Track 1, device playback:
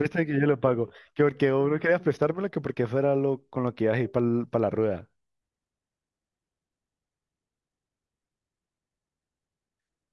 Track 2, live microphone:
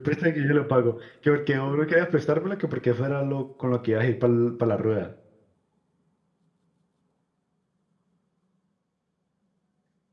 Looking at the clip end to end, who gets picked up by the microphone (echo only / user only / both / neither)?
echo only